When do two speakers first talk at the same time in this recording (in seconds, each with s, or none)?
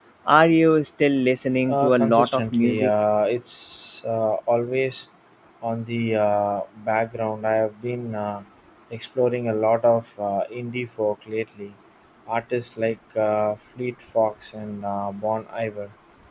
1.7 s